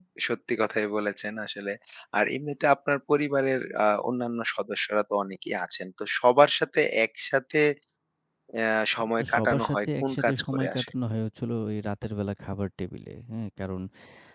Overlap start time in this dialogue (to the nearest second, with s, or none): 9 s